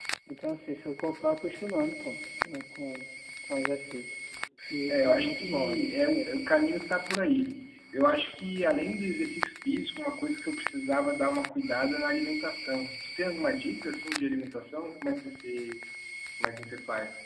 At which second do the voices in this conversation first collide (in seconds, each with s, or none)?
4.9 s